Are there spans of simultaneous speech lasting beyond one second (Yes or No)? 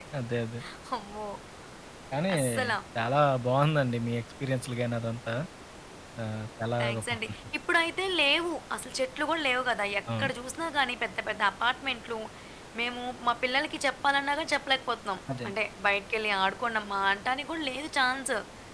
No